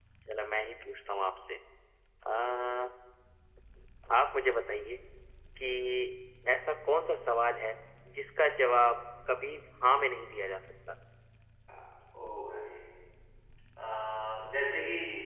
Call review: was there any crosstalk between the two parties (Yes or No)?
No